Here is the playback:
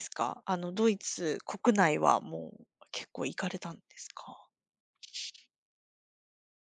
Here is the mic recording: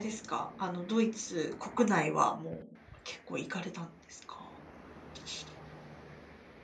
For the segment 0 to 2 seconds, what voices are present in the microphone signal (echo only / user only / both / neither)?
echo only